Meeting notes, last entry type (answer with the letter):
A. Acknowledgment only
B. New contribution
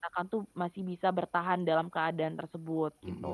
B